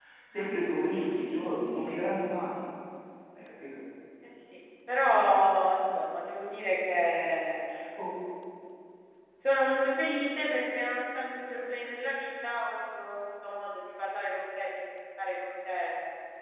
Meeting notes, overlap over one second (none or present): none